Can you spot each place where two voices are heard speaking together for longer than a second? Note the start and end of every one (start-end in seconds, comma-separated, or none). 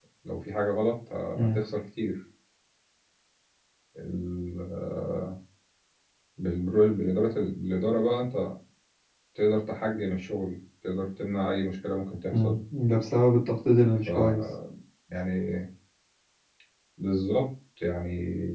none